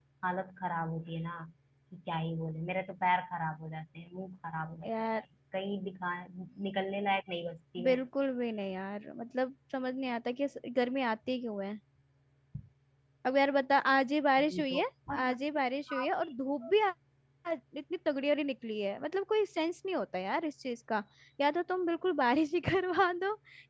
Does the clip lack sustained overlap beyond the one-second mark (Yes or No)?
Yes